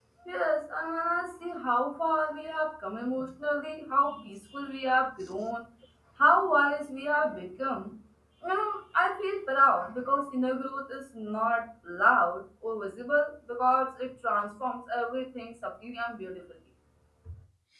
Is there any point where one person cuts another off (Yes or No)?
No